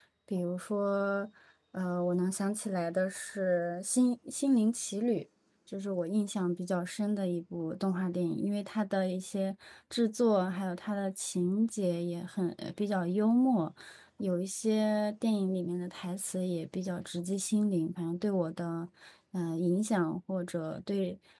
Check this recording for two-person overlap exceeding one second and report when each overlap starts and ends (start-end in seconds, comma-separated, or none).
none